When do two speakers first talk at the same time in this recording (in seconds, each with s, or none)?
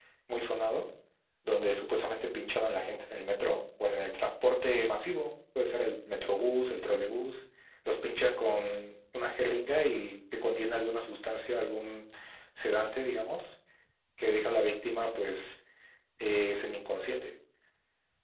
none